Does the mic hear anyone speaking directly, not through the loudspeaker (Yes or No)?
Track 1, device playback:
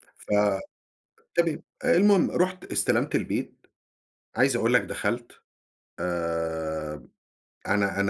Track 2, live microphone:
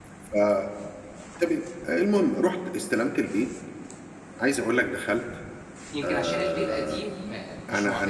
Yes